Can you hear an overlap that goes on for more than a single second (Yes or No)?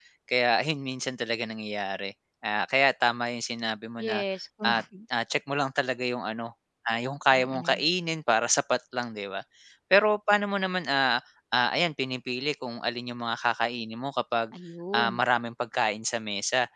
No